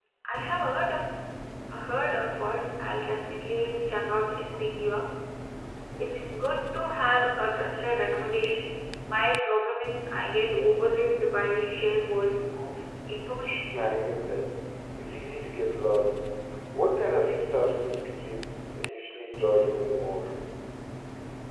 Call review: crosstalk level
none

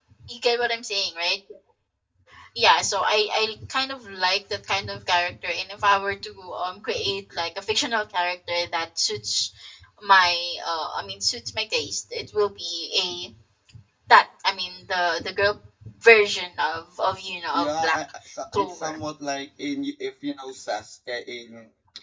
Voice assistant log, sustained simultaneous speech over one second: none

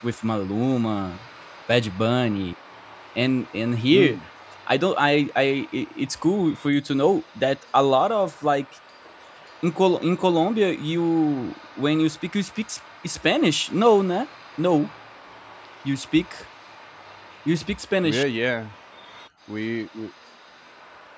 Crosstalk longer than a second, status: none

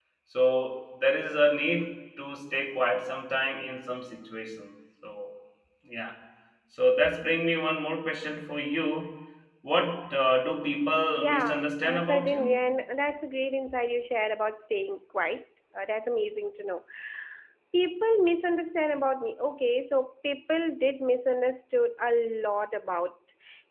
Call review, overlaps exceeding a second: present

